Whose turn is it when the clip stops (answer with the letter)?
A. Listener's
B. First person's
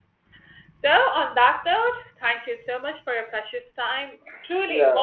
A